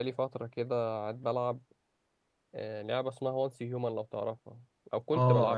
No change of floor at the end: No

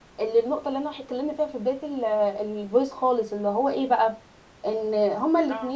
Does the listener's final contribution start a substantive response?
No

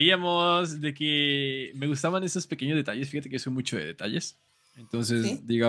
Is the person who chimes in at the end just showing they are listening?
Yes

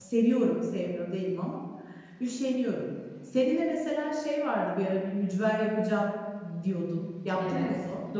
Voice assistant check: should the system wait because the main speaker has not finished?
No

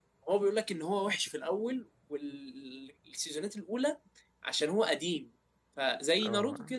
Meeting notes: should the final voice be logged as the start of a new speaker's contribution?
Yes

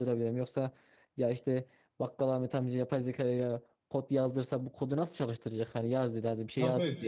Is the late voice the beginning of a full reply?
Yes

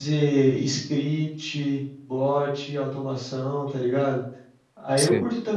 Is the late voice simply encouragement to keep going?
Yes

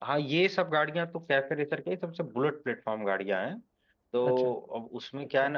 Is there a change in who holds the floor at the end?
No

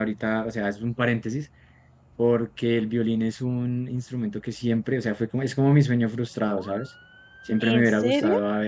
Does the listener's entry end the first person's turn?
No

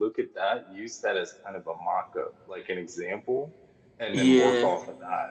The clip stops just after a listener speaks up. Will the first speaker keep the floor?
Yes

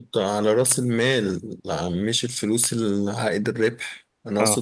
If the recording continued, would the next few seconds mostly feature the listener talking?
No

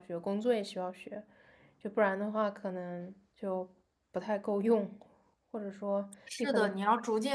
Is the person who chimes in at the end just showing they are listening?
No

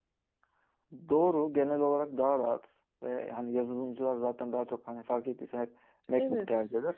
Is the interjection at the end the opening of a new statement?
No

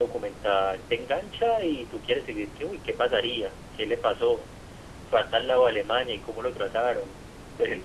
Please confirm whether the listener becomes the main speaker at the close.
No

